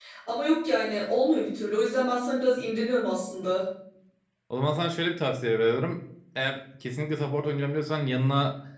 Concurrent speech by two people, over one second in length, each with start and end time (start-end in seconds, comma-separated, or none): none